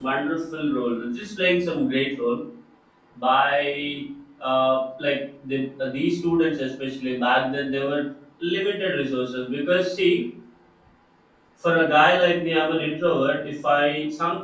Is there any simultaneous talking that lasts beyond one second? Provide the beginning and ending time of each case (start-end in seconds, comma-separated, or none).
none